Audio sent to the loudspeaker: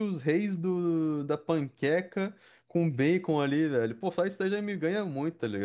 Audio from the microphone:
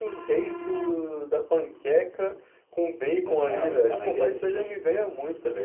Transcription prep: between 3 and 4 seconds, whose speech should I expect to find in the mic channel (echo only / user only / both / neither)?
both